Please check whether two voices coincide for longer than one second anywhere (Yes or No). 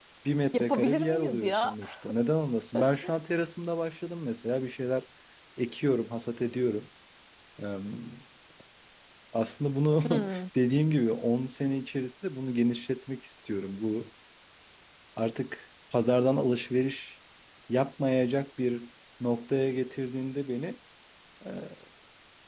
Yes